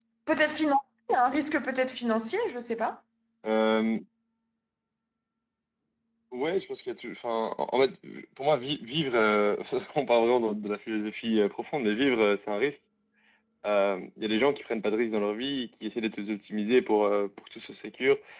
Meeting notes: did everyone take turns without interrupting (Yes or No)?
Yes